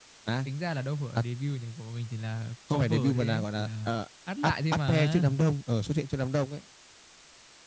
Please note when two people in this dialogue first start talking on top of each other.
2.7 s

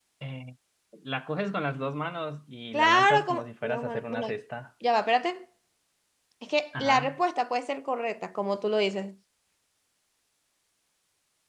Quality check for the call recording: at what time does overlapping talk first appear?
2.7 s

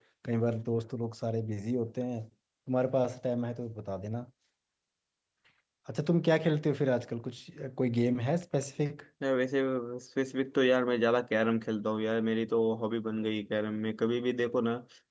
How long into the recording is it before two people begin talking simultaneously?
none

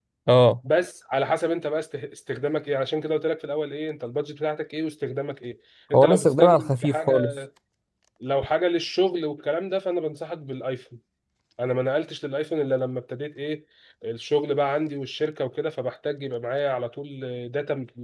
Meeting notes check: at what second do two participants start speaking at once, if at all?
5.9 s

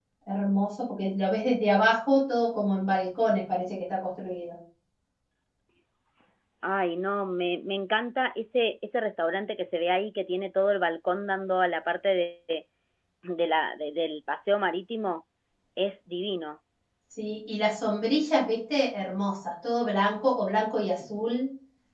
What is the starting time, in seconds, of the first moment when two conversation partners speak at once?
none

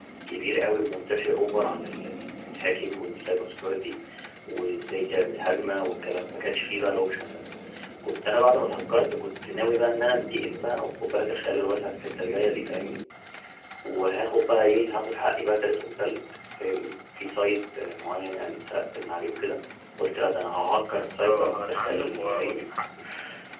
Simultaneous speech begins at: 21.2 s

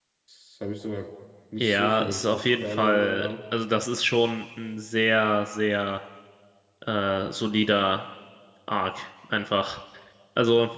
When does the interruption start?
1.6 s

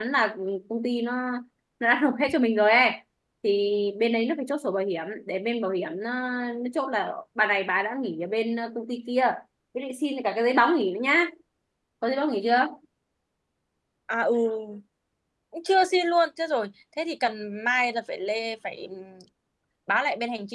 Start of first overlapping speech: none

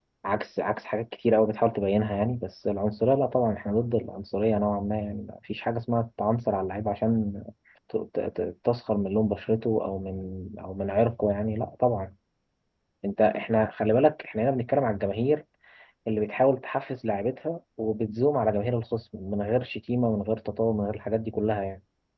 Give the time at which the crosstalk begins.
none

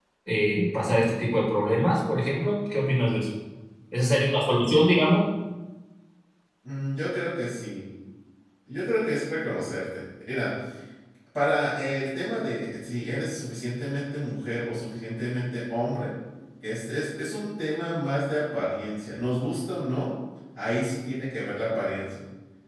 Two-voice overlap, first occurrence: none

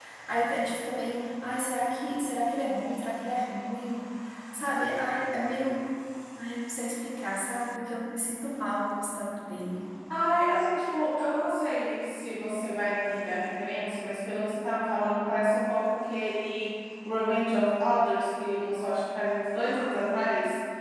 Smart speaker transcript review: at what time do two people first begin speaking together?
none

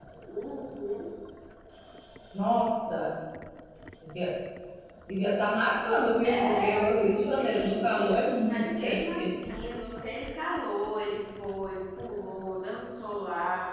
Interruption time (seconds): 6.2 s

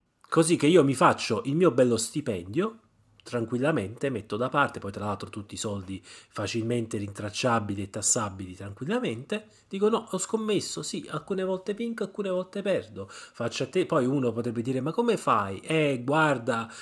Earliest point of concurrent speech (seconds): none

